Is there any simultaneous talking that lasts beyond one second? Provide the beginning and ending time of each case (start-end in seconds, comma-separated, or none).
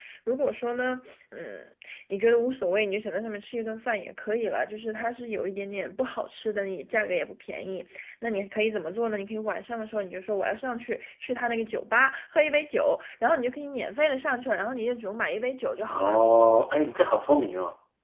none